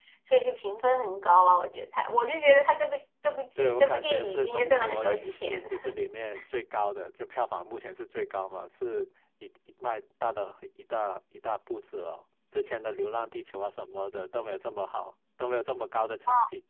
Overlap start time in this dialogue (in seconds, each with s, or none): 3.6 s